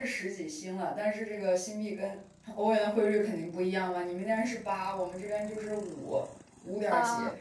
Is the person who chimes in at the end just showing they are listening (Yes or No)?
Yes